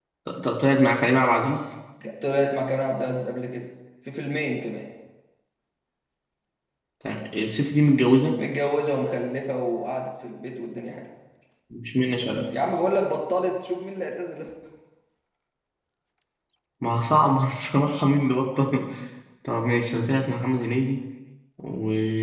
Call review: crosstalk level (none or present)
none